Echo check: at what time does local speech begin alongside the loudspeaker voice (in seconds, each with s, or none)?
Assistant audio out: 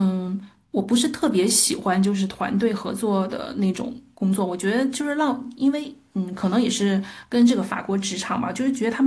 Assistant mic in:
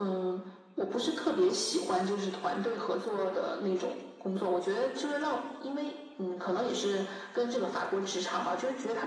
none